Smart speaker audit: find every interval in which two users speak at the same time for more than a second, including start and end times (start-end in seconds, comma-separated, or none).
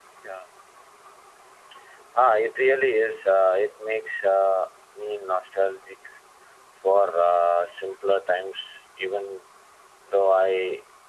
none